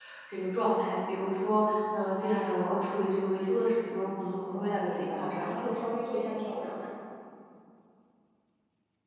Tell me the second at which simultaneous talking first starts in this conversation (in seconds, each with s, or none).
4.2 s